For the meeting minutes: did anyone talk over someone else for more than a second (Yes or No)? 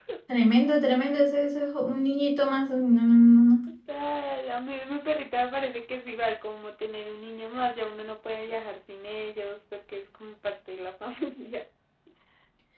No